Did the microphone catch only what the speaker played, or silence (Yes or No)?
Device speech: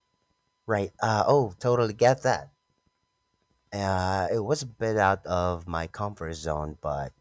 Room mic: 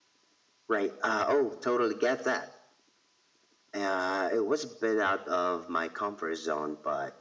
Yes